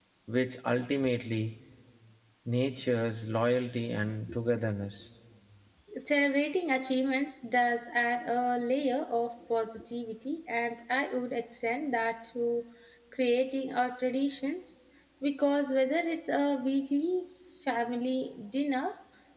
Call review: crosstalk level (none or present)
none